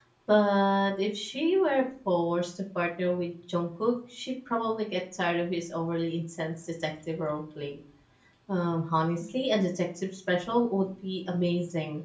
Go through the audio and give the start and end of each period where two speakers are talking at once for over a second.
none

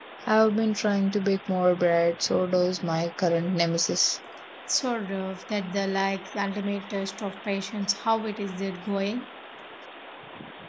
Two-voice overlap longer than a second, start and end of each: none

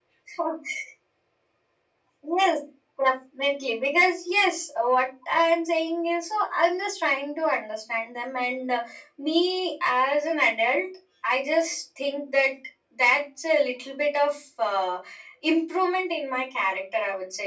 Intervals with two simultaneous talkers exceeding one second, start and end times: none

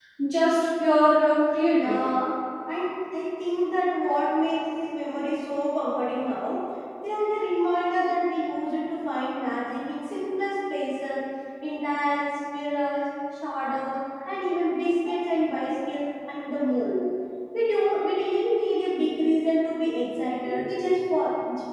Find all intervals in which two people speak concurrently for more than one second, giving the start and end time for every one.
none

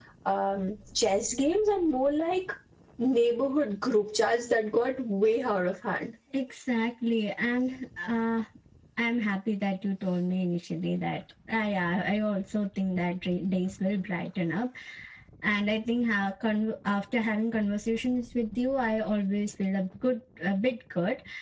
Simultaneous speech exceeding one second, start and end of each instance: none

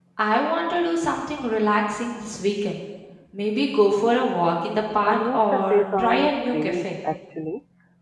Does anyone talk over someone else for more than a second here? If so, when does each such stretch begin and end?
5.1-6.9

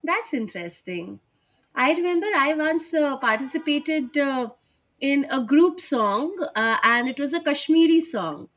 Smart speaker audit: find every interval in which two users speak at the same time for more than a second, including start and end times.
none

